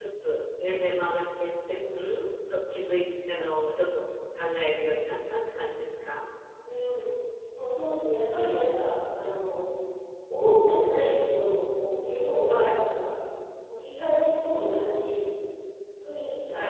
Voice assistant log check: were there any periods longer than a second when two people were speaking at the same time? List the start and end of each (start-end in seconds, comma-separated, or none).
none